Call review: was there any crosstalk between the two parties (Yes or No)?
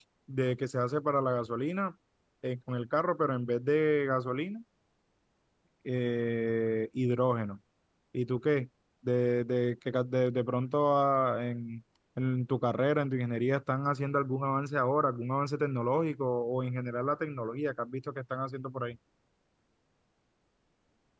No